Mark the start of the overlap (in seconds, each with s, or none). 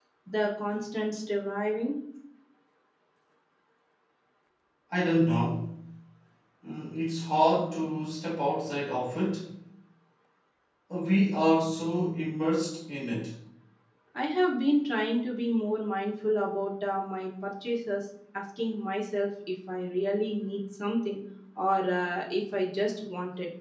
none